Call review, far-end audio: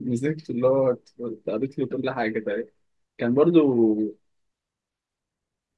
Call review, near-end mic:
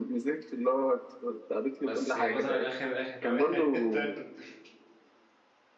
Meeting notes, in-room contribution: present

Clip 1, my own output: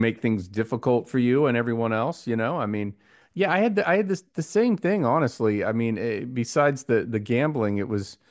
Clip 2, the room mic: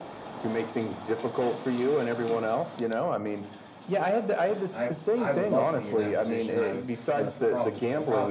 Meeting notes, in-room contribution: present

